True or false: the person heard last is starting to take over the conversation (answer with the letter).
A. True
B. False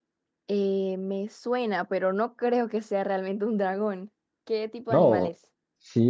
A